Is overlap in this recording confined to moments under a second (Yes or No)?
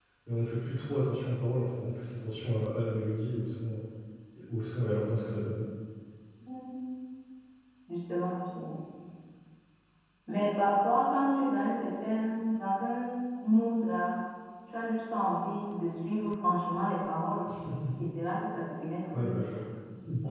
Yes